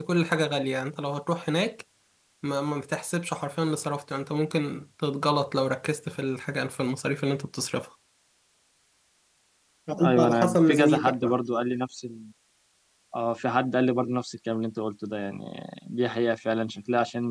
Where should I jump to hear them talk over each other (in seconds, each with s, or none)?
10.0 s